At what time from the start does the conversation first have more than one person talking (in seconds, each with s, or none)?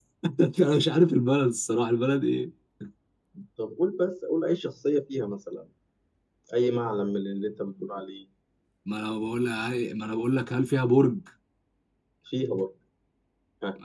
none